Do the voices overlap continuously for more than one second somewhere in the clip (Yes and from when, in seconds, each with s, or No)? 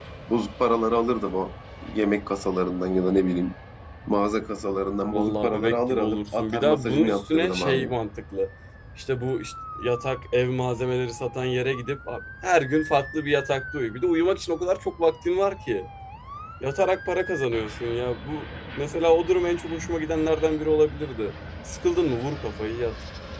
Yes, from 5.1 s